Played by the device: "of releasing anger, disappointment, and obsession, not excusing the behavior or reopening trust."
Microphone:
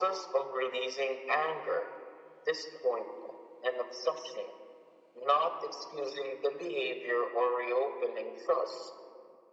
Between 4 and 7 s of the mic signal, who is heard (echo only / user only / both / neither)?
echo only